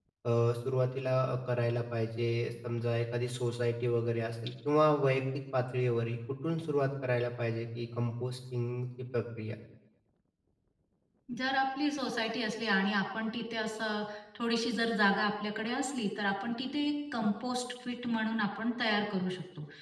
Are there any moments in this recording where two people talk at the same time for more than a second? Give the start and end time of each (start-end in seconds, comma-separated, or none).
none